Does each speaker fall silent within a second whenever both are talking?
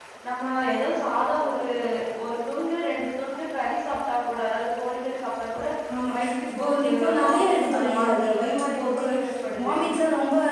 No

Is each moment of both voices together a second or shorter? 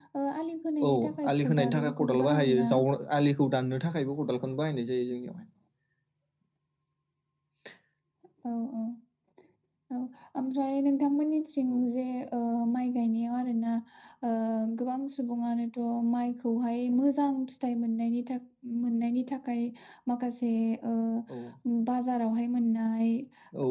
No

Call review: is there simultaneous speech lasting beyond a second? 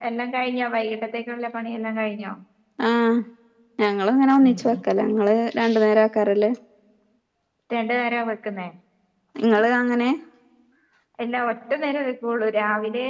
No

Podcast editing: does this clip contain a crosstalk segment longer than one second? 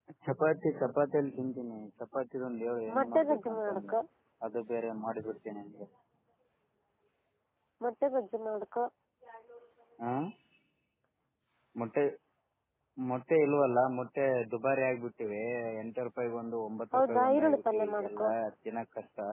Yes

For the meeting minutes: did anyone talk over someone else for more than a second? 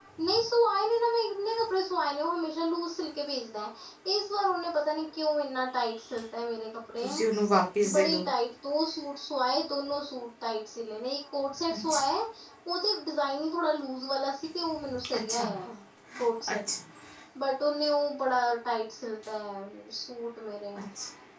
No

